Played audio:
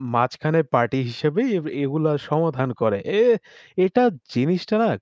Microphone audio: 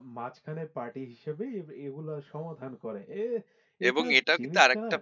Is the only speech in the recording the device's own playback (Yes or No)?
No